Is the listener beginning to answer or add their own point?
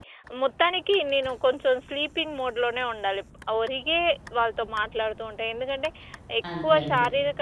No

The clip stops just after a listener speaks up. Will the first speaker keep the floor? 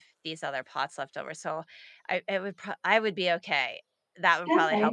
No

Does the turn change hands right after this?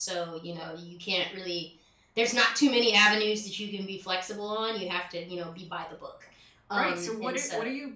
Yes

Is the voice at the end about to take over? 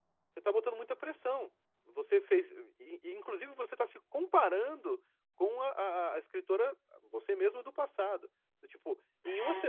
No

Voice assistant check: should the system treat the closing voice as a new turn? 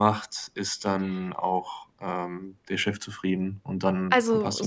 Yes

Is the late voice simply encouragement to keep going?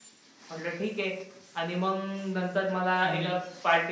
Yes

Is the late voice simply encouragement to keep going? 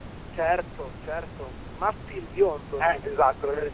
No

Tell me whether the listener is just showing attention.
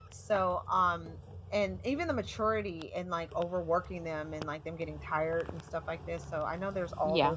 Yes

